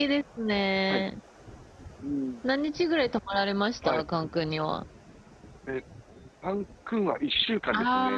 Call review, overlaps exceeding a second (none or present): none